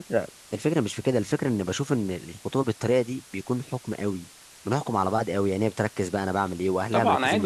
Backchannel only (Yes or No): No